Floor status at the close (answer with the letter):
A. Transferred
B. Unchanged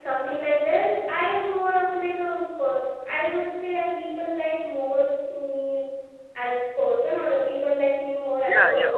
A